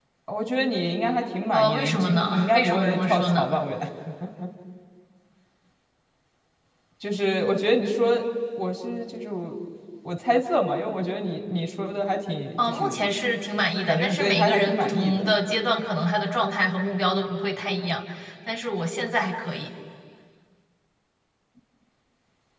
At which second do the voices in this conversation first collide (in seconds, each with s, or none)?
1.5 s